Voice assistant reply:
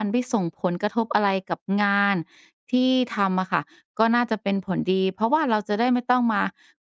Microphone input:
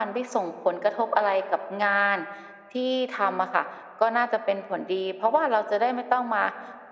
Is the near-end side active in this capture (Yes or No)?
No